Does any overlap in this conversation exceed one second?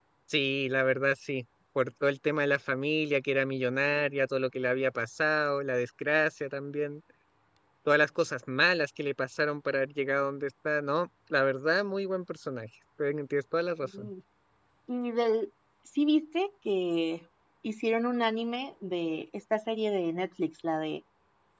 No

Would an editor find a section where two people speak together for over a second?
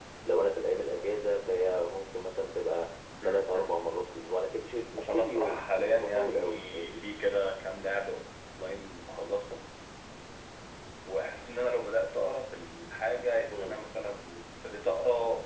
Yes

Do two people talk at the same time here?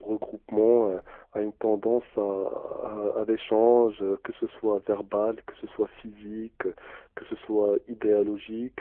No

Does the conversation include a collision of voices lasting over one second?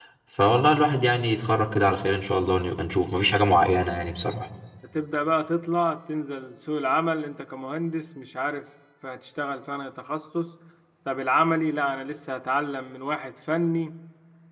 No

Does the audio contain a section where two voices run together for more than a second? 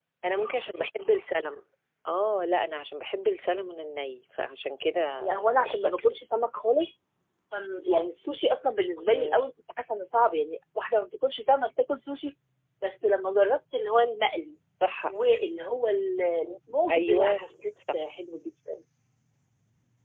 No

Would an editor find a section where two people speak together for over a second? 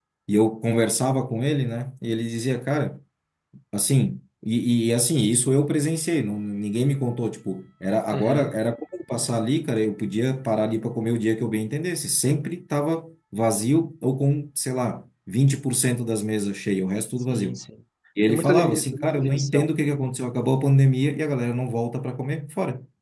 Yes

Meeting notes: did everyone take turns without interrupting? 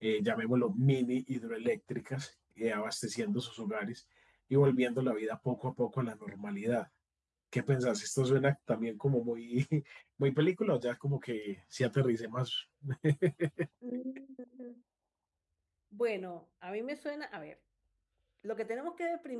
Yes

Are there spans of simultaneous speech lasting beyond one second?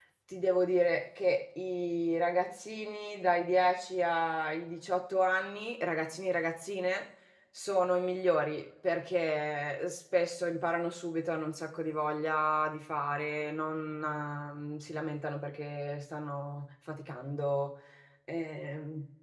No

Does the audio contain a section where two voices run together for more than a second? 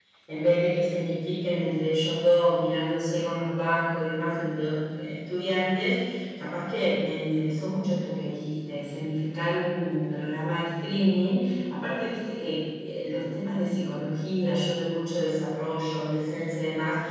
No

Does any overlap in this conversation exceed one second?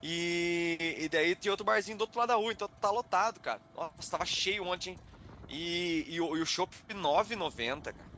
No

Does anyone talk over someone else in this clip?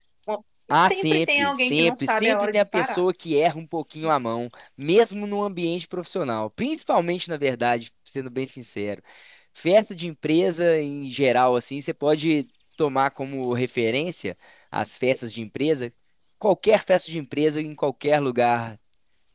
Yes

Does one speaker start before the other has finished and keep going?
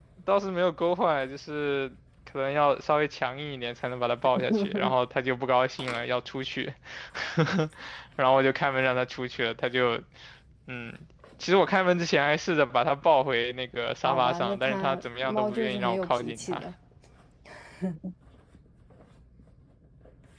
Yes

